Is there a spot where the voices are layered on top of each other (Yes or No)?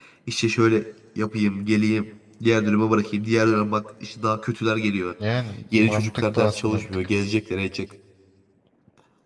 Yes